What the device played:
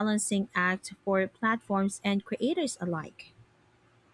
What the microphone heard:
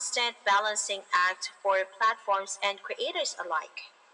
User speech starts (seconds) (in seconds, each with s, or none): none